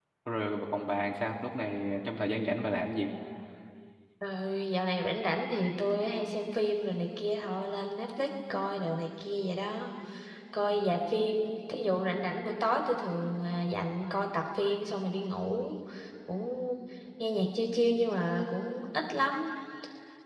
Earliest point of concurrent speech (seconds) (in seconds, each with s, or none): none